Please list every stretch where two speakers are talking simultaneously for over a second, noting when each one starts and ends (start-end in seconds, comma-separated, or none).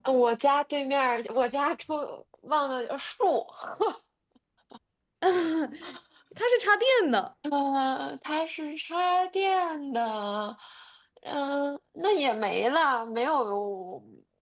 none